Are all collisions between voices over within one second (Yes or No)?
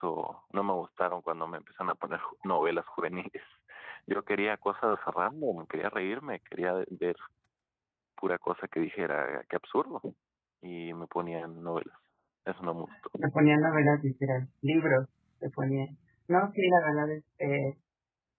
Yes